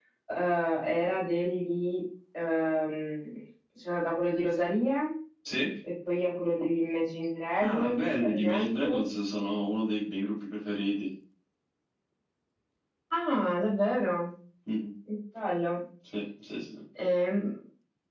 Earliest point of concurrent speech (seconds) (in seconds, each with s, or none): 7.6 s